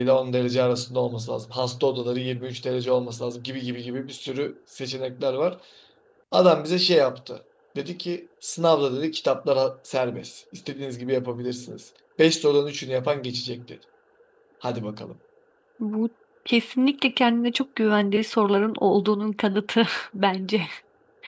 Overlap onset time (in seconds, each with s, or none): none